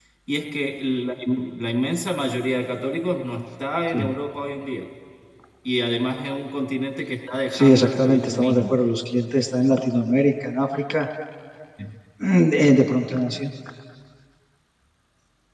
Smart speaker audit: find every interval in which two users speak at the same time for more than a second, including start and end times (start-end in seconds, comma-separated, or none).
7.5-8.8